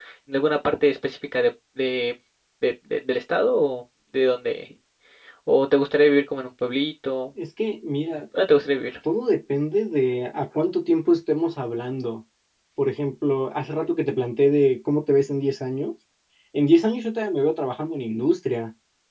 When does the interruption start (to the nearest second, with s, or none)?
none